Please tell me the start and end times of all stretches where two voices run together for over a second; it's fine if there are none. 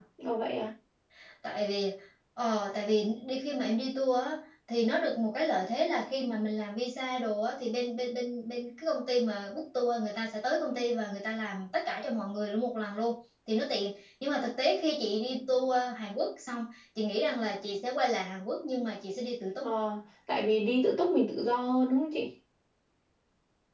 none

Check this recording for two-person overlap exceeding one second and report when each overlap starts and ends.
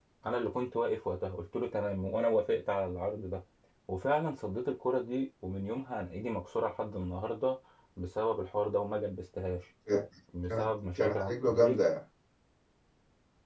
10.5-11.8

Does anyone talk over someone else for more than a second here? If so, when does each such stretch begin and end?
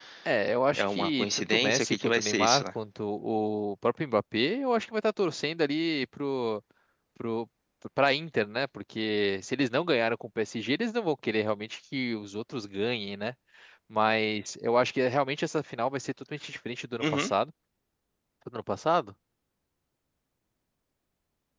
0.8-2.7

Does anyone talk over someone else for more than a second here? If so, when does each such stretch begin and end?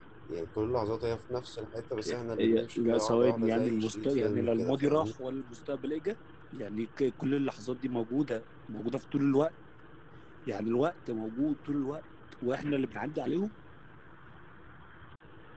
2.4-5.1

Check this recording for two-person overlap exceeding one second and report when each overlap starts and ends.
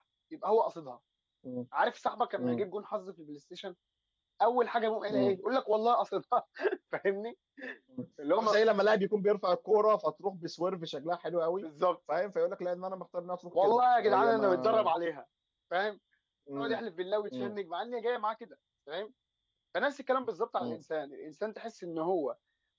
13.6-14.9

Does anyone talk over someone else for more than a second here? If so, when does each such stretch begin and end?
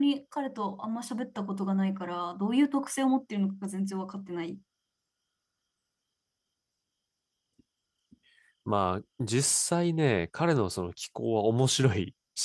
none

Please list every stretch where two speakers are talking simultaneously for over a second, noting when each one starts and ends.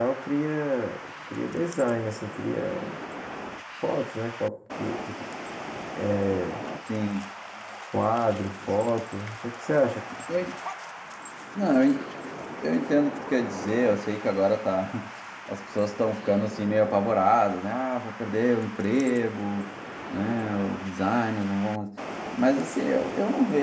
none

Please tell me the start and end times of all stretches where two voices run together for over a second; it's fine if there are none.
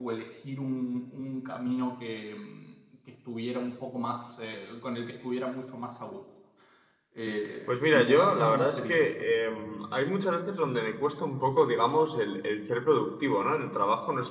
7.7-9.1

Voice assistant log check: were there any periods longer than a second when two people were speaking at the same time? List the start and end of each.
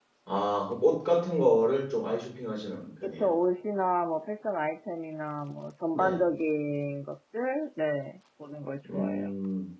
none

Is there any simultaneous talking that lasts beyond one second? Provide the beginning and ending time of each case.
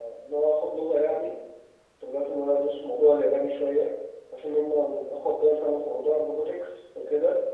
none

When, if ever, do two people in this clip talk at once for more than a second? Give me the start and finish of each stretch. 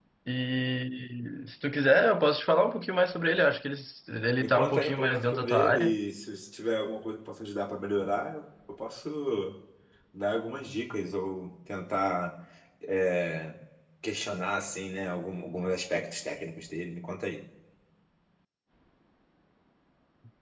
4.4-6.0

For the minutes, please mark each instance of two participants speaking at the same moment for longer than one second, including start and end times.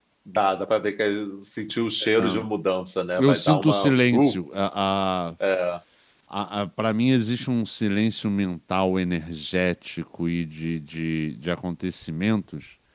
3.2-4.4

